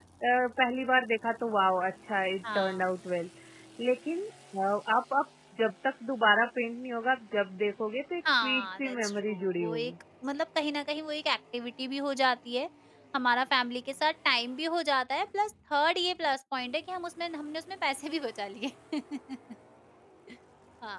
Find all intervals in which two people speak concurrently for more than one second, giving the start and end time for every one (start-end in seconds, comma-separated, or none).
8.3-9.9